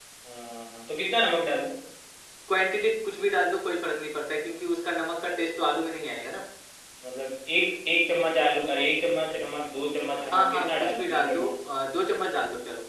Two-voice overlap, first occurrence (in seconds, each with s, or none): 10.2 s